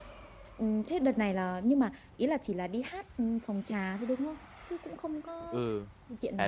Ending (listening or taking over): taking over